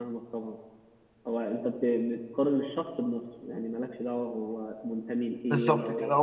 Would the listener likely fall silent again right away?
No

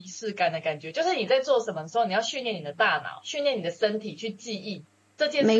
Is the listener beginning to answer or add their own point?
No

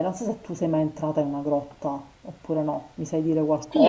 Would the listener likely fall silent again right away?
No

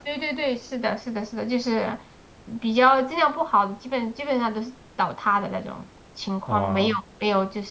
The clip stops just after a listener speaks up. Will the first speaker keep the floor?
Yes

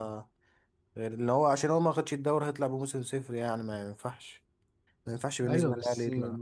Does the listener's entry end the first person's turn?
Yes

